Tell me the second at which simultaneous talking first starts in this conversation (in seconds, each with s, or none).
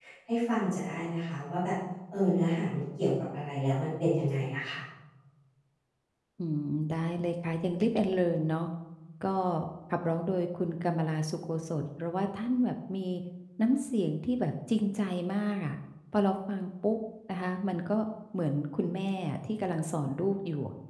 none